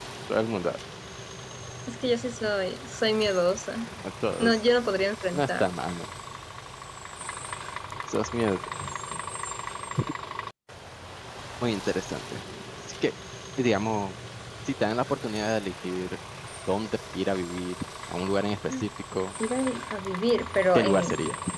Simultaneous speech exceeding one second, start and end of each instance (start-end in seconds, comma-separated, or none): none